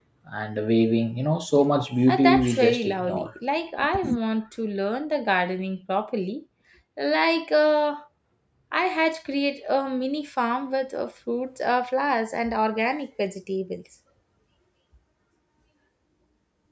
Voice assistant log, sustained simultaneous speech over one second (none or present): present